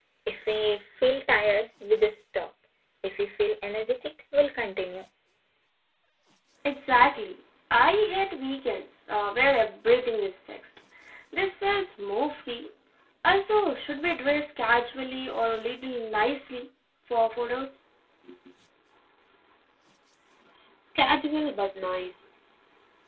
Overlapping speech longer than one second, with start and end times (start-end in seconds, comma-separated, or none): none